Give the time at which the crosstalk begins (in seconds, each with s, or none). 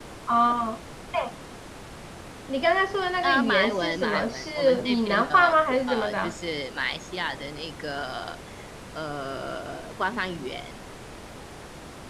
3.2 s